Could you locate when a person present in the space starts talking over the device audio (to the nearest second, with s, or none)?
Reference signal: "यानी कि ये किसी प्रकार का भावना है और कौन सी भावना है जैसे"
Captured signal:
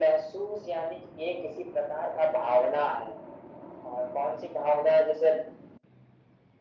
none